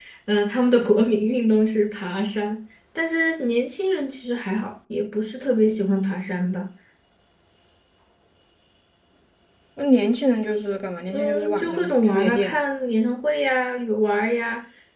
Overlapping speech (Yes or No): Yes